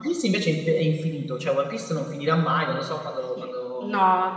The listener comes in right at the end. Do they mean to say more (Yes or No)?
Yes